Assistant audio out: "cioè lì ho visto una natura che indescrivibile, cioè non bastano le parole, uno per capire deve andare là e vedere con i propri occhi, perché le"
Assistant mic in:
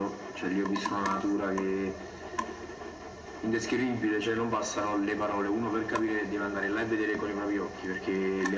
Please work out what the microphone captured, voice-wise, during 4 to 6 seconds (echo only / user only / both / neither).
echo only